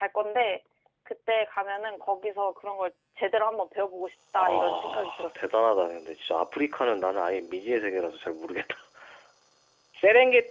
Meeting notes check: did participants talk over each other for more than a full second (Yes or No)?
Yes